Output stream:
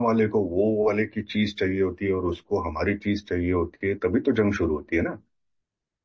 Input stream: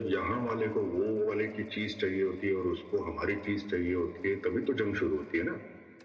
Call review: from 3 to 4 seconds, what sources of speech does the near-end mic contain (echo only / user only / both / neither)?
echo only